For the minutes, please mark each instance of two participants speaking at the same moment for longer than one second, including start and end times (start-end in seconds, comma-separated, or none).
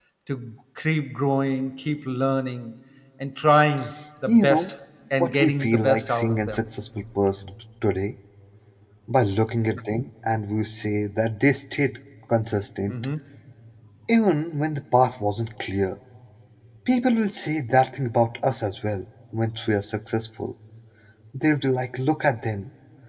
5.2-6.6